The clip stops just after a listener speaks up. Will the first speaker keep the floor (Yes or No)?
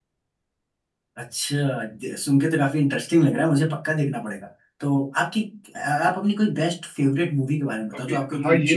No